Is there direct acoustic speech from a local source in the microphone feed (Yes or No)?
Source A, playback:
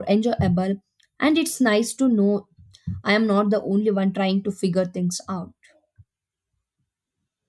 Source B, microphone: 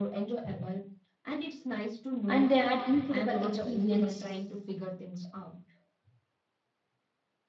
Yes